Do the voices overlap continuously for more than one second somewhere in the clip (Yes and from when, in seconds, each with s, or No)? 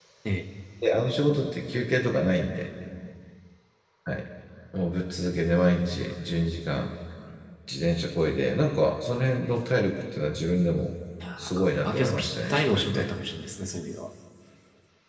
Yes, from 11.6 s